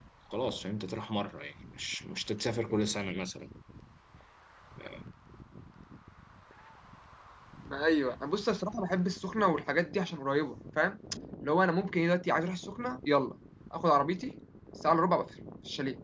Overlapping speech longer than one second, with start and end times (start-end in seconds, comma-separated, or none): none